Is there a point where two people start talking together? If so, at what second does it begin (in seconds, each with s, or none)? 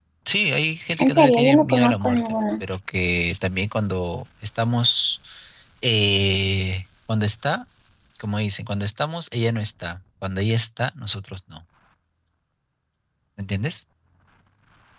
1.0 s